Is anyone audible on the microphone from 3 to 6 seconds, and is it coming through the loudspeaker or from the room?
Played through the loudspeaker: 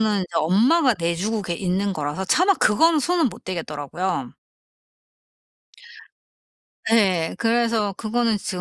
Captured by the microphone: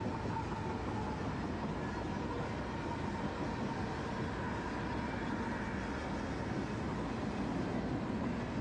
neither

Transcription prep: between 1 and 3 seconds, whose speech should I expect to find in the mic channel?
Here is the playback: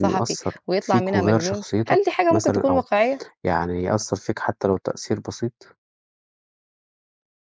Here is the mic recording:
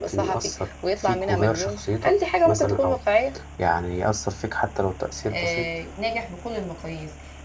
echo only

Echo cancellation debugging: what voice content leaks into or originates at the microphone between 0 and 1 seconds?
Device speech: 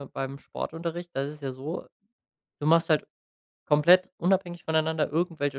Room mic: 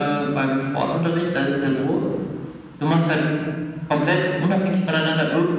echo only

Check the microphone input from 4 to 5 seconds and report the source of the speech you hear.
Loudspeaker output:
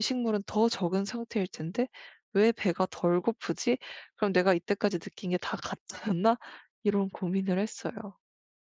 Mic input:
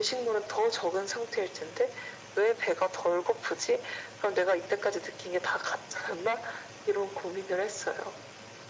echo only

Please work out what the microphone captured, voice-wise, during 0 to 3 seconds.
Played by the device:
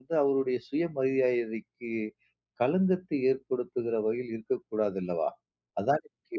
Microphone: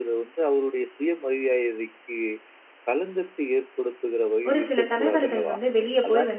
echo only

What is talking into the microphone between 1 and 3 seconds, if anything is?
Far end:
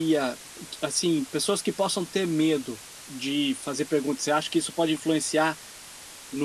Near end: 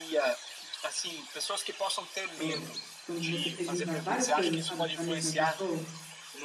both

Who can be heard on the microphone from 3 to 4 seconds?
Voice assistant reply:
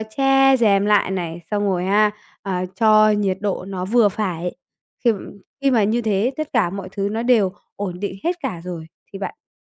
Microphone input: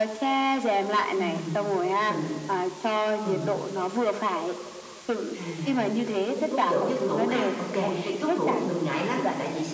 both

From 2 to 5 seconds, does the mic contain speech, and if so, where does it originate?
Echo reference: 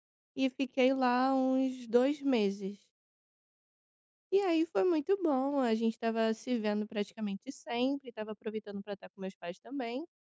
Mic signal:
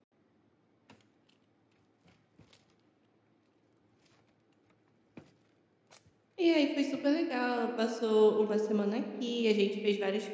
neither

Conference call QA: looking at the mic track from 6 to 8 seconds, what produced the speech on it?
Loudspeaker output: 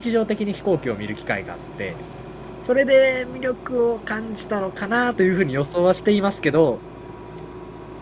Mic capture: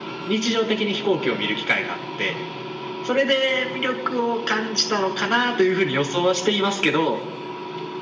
echo only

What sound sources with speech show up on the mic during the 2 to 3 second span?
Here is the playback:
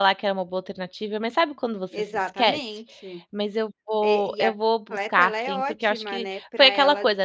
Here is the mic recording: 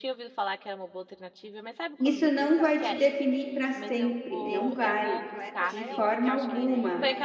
both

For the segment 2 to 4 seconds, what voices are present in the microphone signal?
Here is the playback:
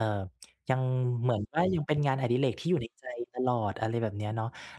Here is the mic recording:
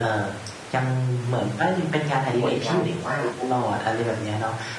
both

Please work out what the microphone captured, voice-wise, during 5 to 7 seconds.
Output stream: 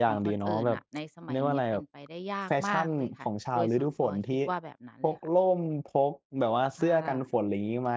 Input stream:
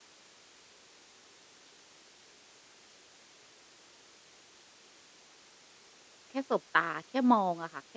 user only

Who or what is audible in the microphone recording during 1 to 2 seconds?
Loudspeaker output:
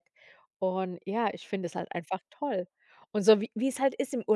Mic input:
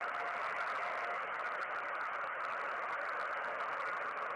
neither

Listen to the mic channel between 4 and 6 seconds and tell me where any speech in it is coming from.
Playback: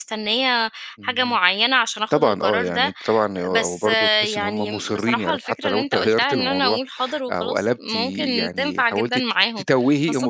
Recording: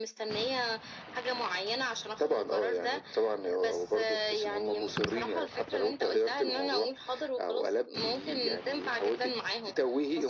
echo only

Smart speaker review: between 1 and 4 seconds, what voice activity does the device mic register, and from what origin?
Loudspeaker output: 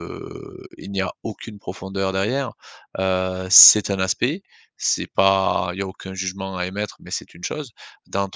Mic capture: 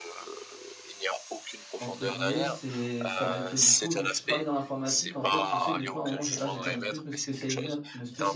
both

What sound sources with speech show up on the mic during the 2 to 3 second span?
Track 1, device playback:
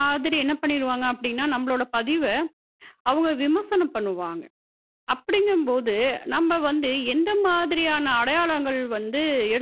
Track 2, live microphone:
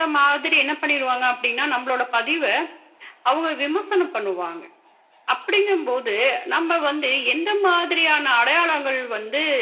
echo only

